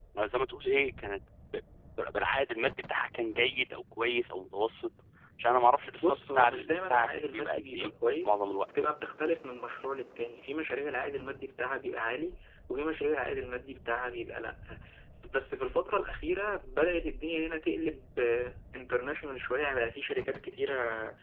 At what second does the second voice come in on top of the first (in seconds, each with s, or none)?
6.0 s